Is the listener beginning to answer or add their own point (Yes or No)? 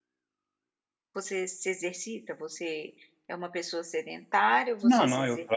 Yes